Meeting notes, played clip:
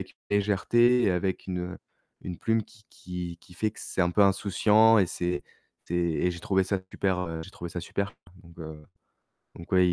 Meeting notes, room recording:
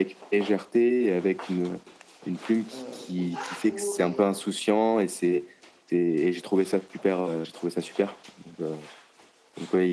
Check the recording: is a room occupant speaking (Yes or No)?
Yes